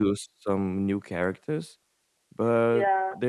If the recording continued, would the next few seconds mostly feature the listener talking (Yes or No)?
Yes